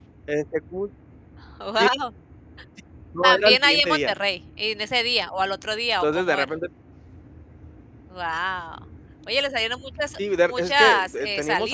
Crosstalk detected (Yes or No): Yes